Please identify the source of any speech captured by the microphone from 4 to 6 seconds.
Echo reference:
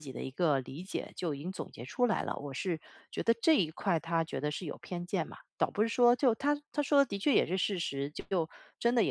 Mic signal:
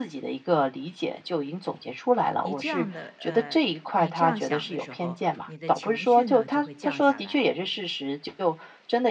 both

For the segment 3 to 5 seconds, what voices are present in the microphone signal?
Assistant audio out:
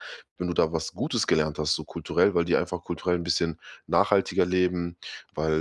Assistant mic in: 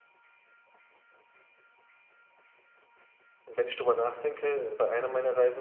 user only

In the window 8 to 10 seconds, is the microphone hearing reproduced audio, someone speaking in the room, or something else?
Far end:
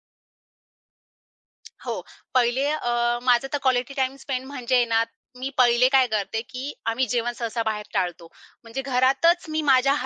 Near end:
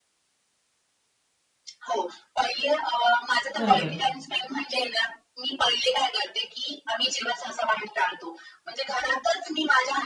echo only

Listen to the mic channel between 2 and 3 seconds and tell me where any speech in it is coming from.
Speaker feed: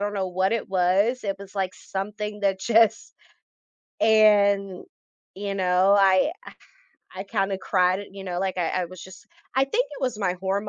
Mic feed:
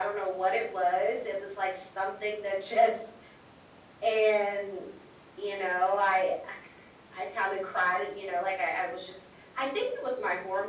echo only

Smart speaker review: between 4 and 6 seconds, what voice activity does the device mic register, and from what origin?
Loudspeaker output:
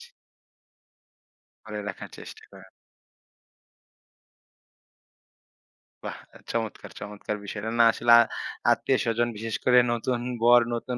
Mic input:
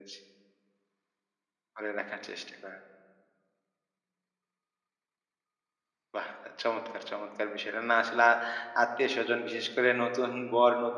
neither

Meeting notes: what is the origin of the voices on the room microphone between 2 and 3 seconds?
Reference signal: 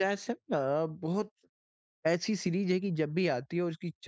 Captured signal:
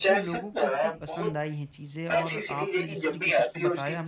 both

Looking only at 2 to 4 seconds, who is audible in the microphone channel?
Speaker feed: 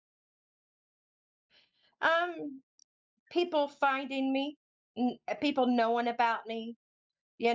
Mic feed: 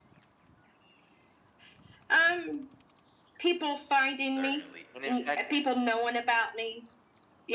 echo only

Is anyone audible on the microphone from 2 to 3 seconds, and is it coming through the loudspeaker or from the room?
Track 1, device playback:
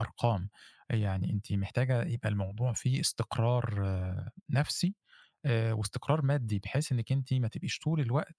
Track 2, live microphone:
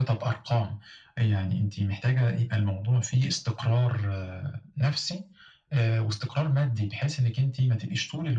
echo only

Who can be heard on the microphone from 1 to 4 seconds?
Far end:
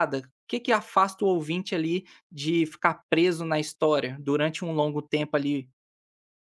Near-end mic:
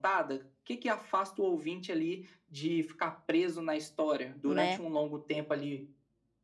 echo only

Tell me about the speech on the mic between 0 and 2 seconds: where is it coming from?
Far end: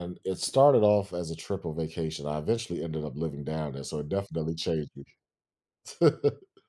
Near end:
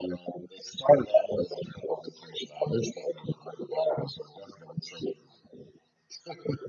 echo only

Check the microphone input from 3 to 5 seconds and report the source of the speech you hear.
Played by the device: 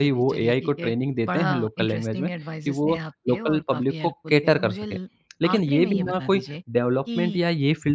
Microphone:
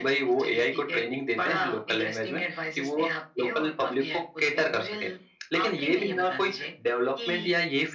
echo only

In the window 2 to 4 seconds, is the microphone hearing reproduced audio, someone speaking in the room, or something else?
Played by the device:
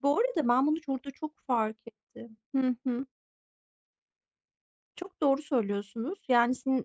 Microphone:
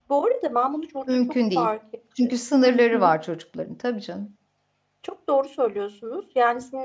both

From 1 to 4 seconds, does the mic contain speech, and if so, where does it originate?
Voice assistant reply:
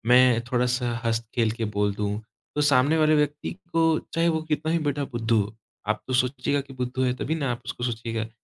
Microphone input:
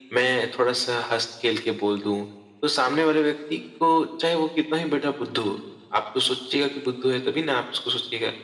echo only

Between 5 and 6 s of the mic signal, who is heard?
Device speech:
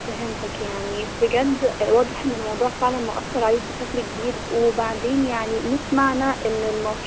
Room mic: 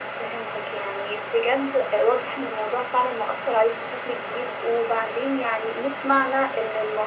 echo only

